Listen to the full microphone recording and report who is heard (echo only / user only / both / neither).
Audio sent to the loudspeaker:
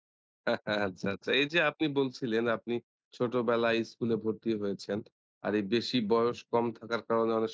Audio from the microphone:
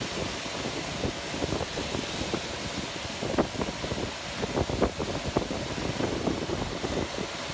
neither